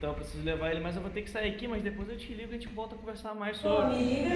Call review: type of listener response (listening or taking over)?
taking over